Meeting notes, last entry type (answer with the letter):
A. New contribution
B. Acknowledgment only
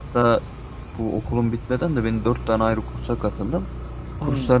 B